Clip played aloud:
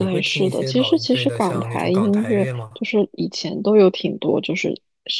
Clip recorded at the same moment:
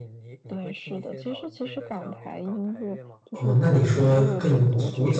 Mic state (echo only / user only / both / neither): both